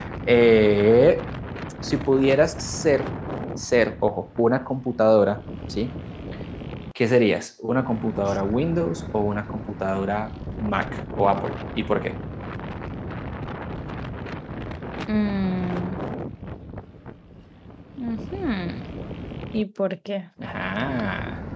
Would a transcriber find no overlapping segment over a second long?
Yes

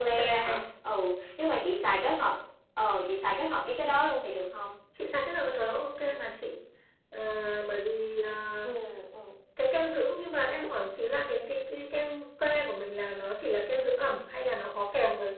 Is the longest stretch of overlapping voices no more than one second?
Yes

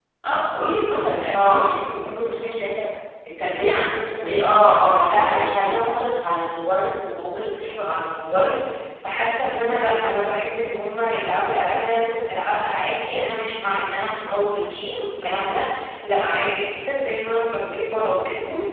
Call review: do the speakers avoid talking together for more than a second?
No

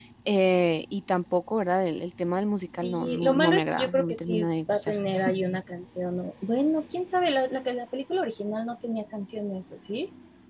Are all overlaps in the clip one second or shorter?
No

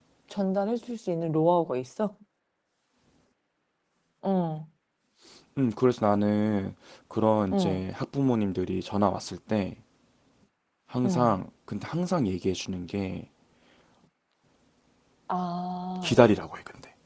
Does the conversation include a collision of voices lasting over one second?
No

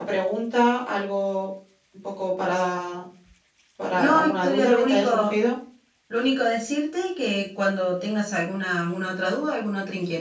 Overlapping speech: Yes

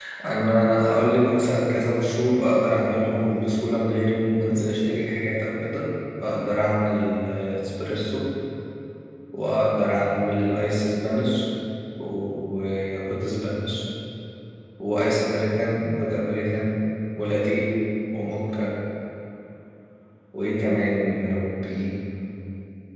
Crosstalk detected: No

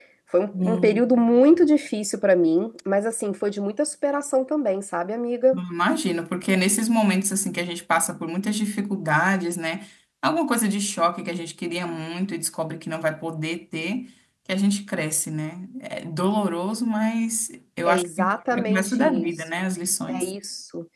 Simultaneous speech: Yes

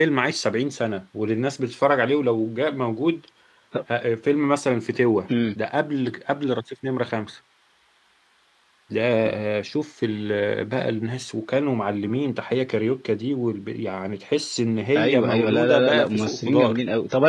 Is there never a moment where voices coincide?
No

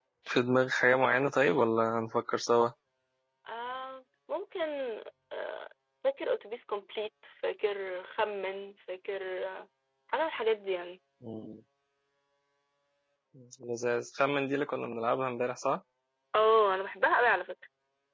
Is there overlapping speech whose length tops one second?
No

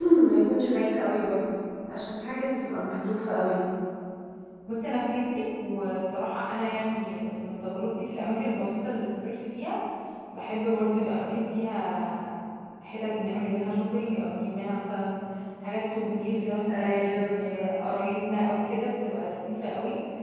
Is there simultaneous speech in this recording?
Yes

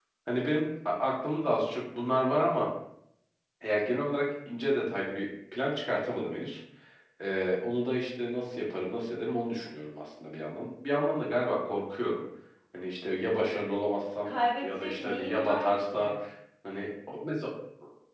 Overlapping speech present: Yes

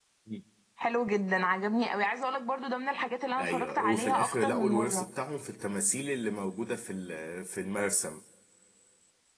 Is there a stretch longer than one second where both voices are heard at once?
Yes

